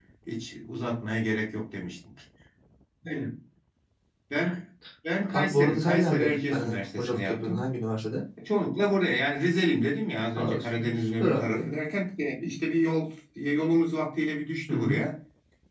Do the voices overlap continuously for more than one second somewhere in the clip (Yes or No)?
Yes